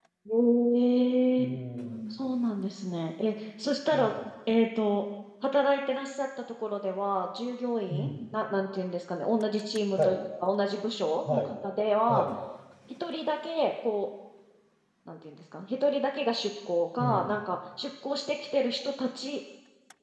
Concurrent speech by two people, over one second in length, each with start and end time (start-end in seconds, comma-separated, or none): none